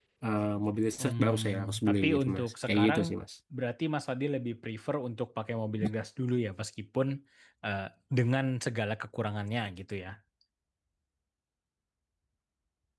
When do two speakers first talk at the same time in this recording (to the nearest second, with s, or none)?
1 s